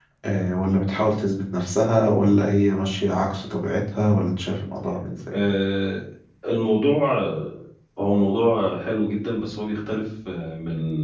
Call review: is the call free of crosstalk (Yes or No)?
Yes